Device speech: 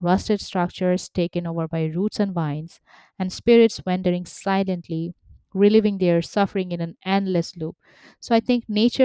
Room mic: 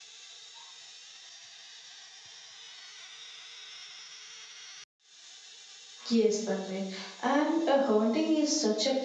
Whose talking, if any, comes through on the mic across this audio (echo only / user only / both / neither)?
user only